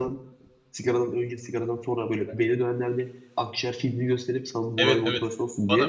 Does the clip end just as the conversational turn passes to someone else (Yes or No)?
Yes